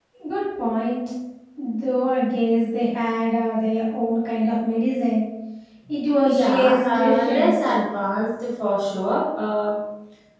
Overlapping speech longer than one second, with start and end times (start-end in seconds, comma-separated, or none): 6.2-7.6